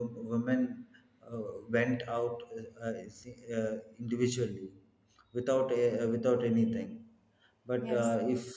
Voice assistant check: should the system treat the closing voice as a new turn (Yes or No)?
No